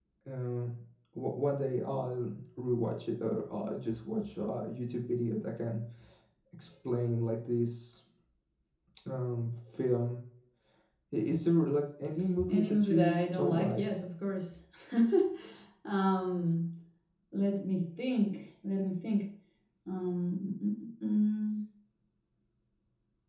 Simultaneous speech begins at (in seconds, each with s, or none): 12.4 s